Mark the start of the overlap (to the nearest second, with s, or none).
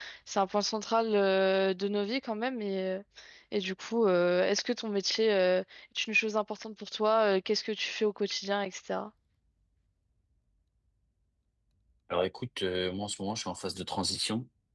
none